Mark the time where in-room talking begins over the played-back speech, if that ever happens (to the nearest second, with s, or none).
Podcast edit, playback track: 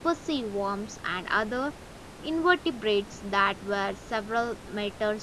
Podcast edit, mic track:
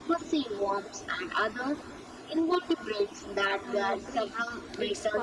4 s